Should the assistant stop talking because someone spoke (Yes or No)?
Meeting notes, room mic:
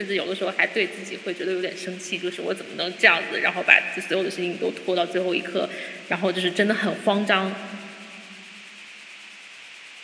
No